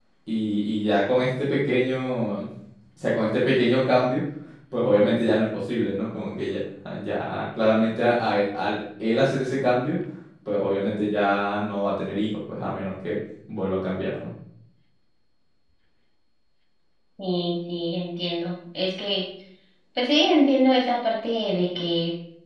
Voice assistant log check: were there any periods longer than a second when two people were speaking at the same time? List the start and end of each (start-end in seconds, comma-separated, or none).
none